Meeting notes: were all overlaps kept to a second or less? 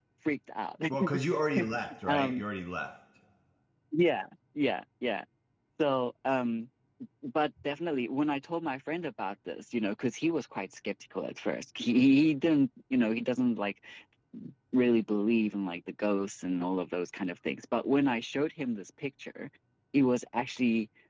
Yes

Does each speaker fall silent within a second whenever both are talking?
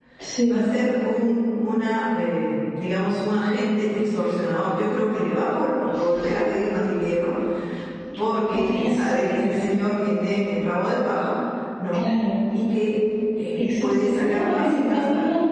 No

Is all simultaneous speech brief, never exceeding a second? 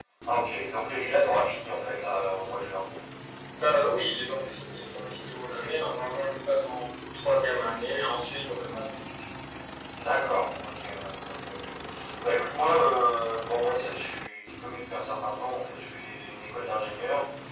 Yes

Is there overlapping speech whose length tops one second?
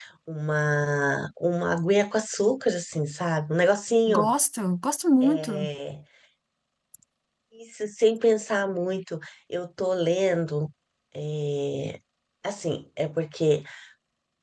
No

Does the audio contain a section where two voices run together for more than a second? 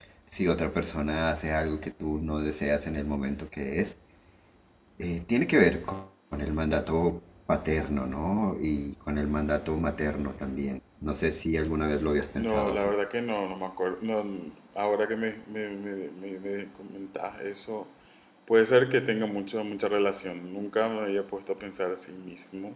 No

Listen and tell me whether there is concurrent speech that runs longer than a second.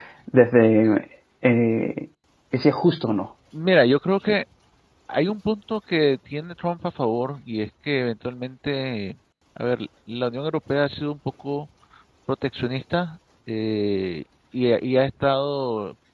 No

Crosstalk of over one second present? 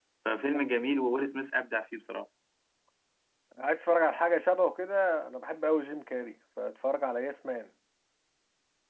No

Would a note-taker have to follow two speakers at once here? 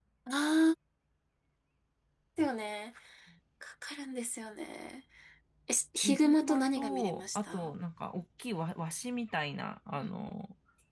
Yes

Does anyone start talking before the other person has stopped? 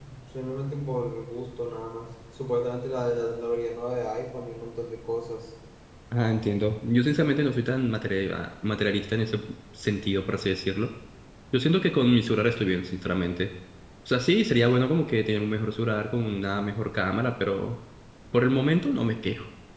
No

